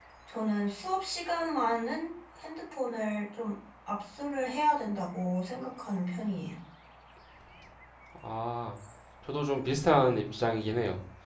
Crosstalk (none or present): none